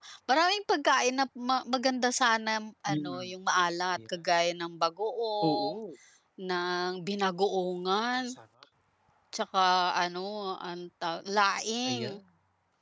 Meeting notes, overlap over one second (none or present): none